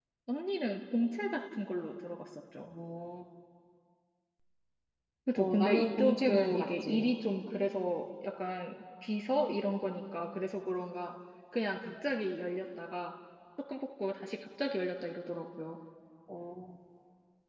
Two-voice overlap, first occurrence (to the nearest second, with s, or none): 5 s